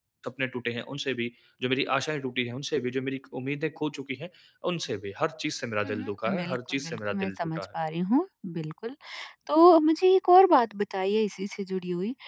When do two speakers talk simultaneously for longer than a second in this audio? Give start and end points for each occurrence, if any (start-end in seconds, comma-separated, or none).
5.8-7.6